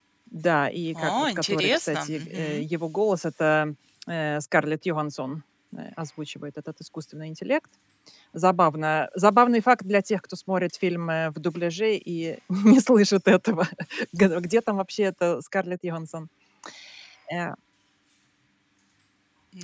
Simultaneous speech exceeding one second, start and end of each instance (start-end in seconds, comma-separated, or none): 0.9-2.6